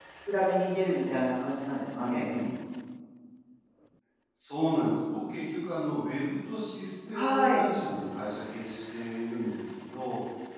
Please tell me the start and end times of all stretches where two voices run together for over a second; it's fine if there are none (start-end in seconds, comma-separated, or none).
none